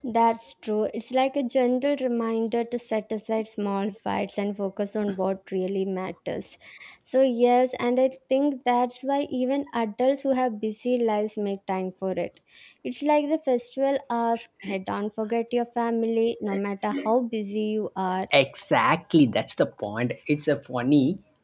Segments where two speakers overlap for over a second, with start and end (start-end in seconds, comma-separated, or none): none